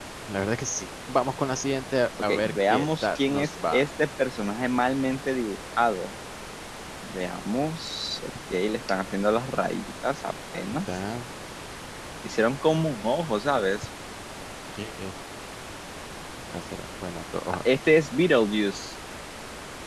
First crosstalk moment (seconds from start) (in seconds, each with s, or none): 2.2 s